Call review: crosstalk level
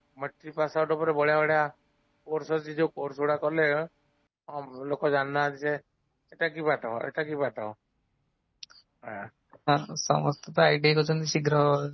none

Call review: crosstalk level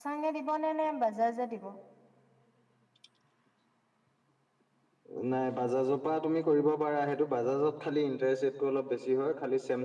none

